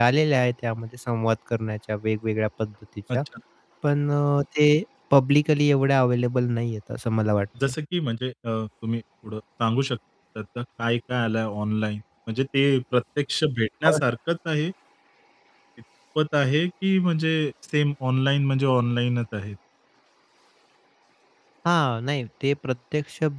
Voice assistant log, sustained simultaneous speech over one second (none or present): none